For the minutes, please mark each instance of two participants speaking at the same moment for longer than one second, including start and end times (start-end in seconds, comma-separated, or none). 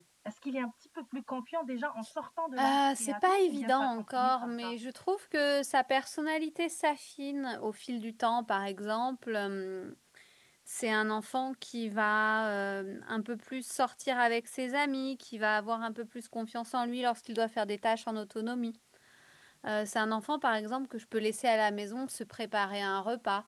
2.6-4.8